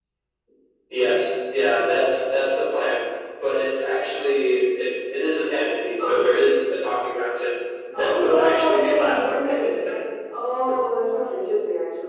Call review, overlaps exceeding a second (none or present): present